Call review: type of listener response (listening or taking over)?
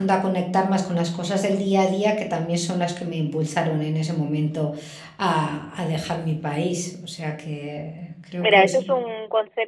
taking over